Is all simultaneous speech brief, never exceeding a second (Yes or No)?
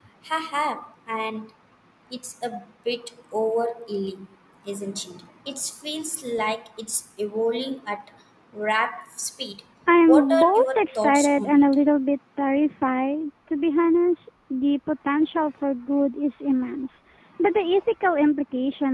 No